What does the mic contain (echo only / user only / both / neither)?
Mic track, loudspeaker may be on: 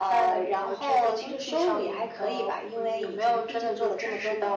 echo only